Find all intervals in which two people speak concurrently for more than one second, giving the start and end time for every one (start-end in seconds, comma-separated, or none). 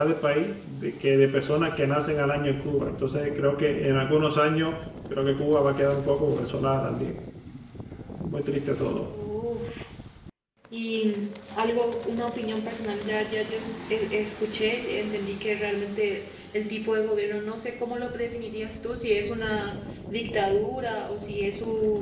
none